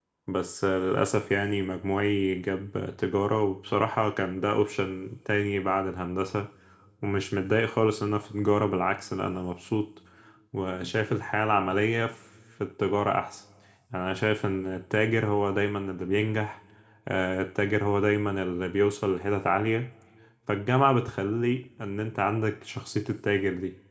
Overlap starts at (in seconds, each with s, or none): none